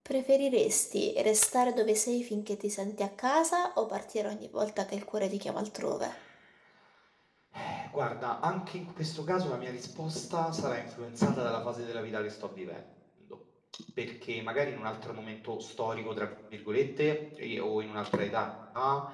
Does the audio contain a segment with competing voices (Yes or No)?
No